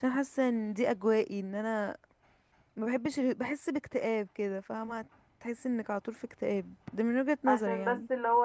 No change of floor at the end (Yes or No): No